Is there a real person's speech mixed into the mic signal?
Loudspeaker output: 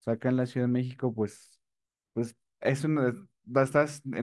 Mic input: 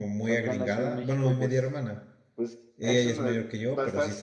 Yes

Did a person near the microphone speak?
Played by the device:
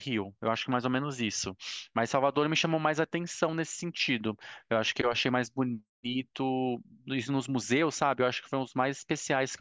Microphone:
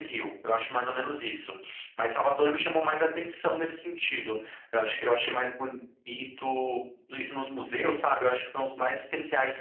No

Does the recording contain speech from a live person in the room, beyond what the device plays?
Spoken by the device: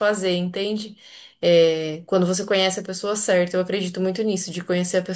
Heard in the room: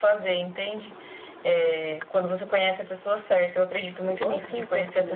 Yes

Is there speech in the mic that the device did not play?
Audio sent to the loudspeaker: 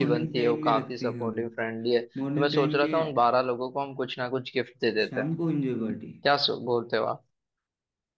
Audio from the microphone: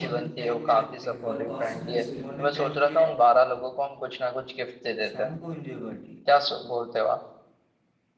Yes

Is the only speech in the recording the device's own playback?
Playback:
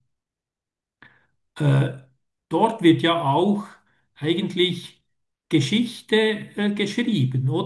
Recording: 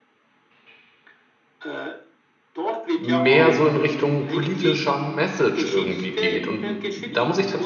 No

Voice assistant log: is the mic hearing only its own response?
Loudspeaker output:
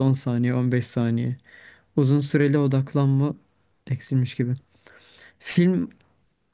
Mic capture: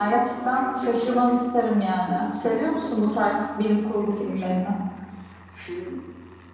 No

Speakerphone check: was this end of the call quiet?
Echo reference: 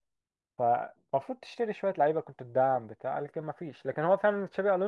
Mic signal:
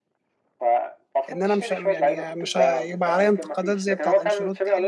No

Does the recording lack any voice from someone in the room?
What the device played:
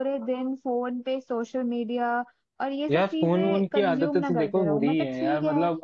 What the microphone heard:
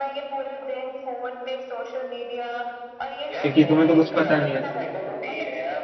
No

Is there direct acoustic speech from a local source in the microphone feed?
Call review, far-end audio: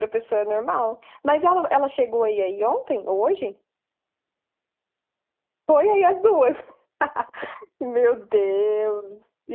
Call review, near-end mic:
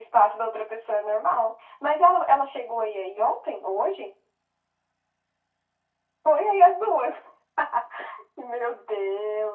No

